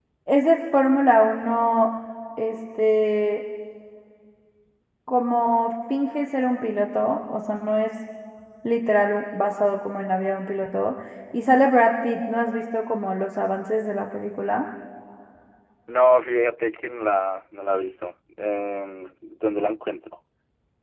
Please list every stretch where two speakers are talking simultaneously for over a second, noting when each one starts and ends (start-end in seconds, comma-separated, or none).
none